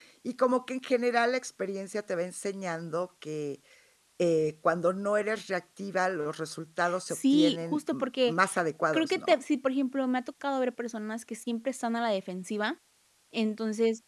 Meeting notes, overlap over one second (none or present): present